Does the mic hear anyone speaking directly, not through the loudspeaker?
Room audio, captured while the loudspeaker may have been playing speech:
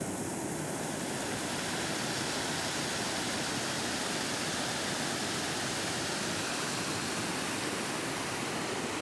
No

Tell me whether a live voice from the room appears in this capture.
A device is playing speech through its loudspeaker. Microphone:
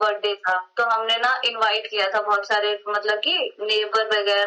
No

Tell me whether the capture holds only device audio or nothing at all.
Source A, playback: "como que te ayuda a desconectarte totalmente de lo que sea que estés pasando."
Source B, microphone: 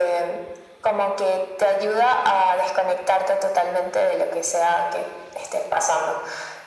Yes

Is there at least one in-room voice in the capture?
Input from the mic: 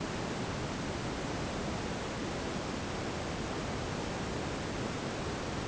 No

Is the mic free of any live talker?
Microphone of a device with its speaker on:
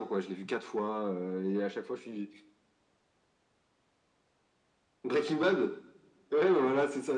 Yes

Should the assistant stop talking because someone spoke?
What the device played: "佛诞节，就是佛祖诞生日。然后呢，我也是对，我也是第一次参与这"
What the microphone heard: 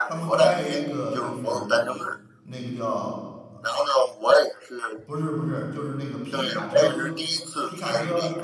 Yes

